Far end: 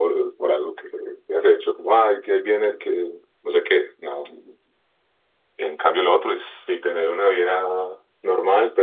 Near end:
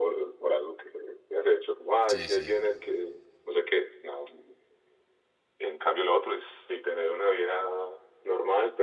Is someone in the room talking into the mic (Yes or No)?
Yes